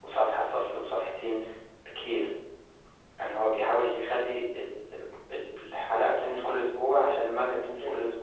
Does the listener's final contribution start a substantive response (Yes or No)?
No